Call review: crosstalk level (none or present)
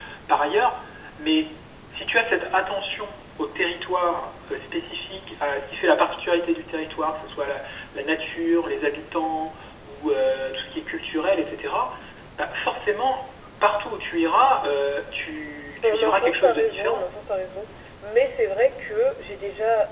present